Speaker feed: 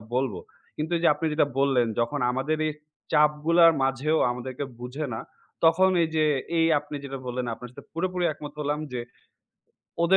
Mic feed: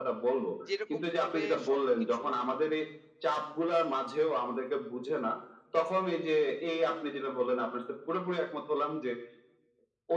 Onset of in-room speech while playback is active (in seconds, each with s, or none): 0.7 s